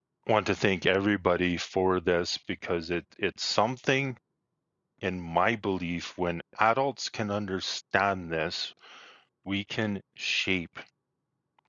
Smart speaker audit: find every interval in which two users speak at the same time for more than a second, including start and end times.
none

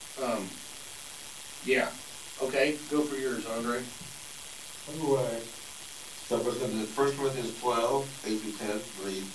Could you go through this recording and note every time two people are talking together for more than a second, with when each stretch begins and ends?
none

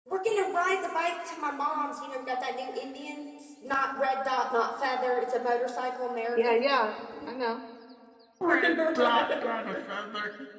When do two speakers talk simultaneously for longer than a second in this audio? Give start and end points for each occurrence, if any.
8.5-9.8

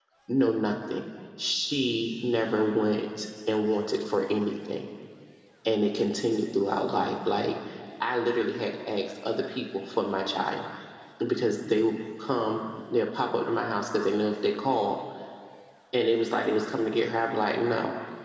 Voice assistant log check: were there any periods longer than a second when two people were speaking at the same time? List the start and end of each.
none

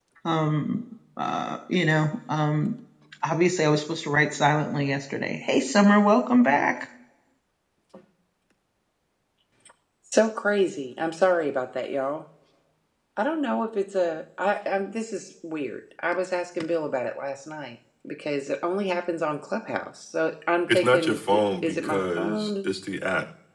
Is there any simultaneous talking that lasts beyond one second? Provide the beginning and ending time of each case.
20.7-22.5

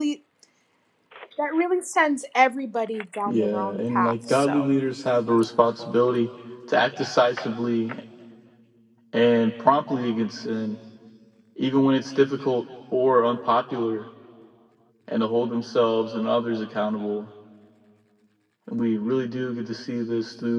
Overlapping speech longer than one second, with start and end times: 3.3-4.6

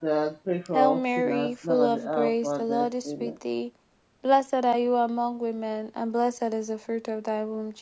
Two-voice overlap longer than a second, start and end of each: 0.7-3.3

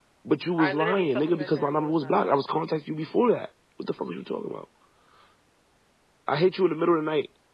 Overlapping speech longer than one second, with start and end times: 0.6-2.4

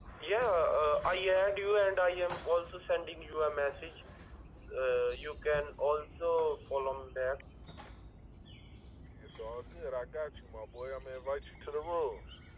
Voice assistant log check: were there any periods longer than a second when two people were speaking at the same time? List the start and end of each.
none

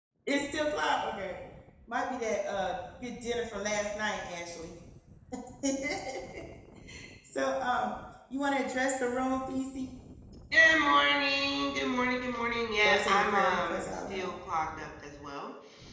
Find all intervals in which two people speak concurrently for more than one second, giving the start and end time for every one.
12.8-14.3

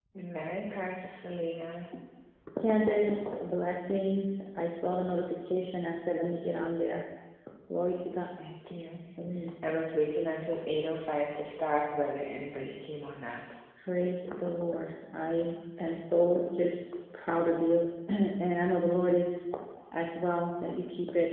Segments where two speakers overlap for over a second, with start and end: none

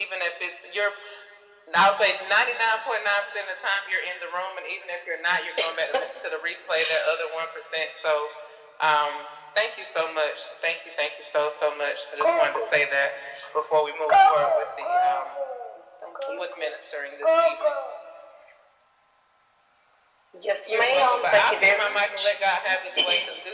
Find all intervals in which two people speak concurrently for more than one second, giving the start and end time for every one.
20.7-22.3

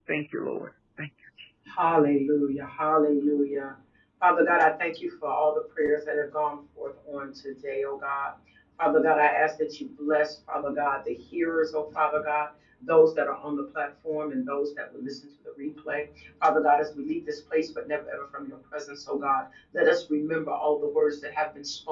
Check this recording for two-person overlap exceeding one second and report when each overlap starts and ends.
none

